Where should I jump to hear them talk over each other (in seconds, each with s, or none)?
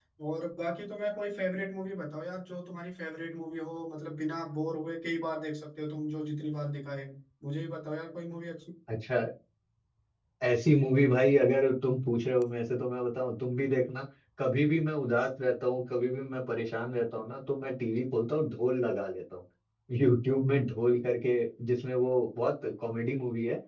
none